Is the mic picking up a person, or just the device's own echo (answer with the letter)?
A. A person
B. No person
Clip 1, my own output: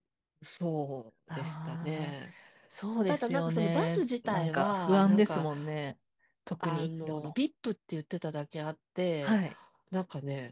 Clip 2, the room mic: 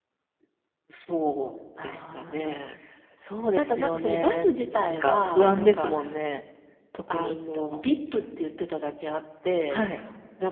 B